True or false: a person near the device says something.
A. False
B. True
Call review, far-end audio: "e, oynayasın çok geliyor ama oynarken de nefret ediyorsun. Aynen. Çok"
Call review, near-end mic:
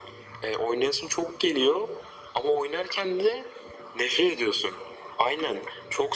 A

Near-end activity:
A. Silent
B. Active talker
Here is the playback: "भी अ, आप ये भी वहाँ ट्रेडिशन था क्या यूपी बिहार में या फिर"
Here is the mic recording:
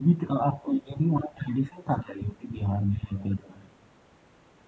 A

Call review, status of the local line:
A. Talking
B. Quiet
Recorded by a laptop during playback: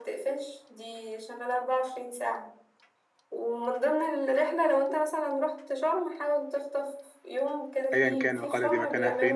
A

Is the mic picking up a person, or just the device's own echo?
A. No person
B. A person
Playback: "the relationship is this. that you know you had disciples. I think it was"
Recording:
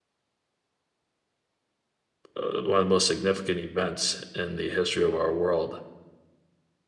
B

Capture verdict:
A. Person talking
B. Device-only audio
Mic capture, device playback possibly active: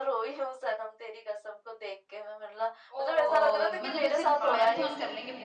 A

